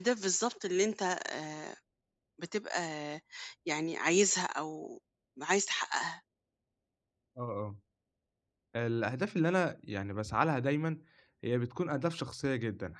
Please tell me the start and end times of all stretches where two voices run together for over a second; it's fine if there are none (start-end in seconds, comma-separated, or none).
none